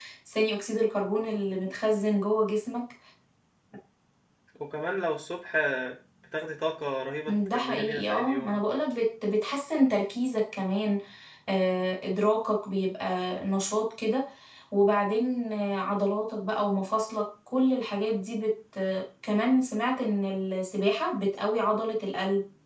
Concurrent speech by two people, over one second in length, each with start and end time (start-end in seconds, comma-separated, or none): 7.3-8.6